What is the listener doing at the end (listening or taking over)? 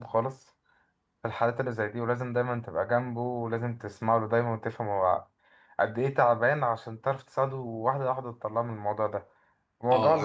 taking over